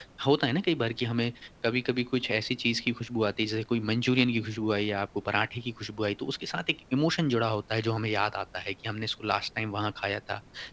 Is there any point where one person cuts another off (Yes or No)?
No